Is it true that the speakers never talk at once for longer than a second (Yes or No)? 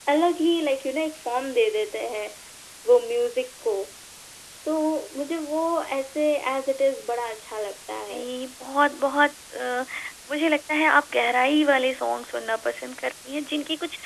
Yes